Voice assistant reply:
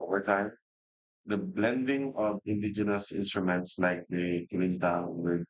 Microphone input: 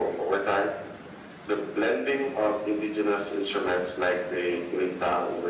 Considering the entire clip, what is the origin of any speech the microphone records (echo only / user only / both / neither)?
echo only